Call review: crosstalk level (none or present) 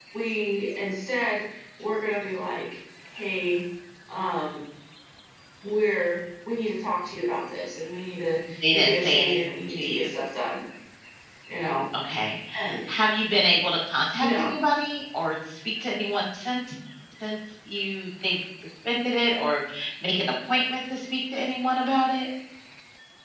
present